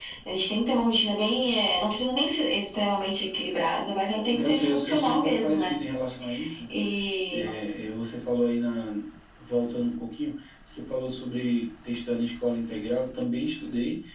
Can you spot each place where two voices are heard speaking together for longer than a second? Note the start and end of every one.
4.3-5.7

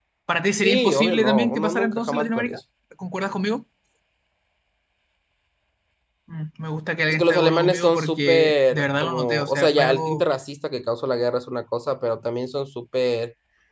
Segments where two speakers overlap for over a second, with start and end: 0.6-2.6, 7.1-10.2

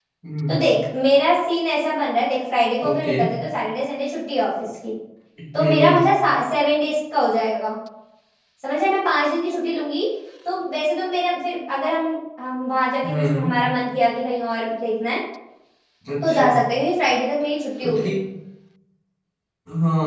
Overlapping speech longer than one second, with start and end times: none

